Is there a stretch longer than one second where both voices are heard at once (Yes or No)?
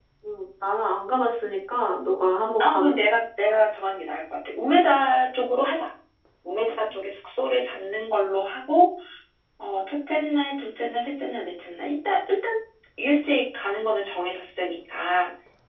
No